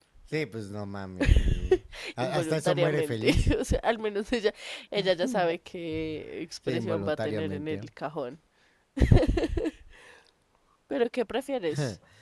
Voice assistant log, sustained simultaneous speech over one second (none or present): present